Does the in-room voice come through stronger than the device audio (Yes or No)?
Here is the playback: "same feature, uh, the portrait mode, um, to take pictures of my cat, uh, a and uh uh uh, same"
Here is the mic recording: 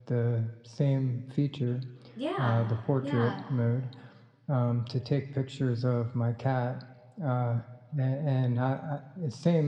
No